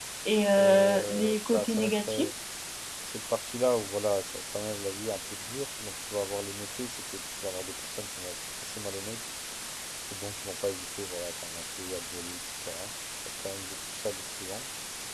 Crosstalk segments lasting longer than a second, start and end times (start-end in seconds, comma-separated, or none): 0.6-2.3